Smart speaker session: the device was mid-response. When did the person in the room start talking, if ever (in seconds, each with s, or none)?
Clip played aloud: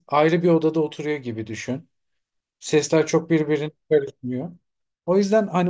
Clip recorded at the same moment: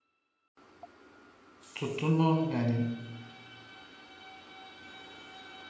1.8 s